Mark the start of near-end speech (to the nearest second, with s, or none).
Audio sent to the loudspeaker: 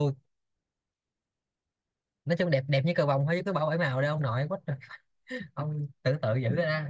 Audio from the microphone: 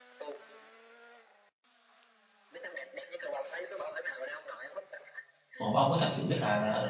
6 s